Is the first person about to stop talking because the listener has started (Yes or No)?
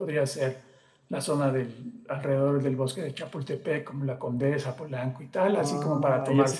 Yes